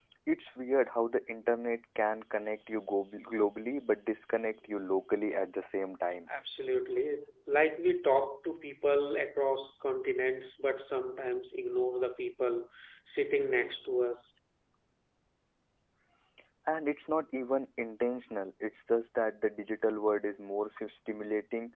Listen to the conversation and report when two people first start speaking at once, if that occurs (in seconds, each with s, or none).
none